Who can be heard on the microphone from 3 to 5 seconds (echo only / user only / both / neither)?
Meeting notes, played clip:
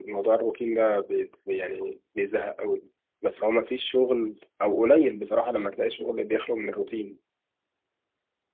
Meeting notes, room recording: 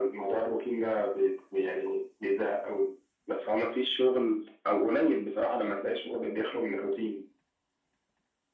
echo only